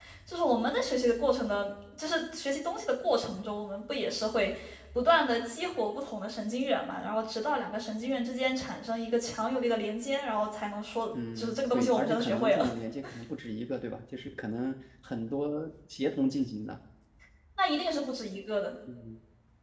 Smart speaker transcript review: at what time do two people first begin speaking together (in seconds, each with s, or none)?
11.1 s